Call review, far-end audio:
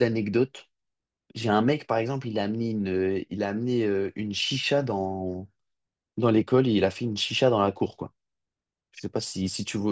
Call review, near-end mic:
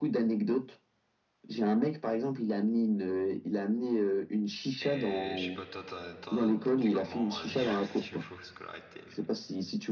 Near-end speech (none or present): present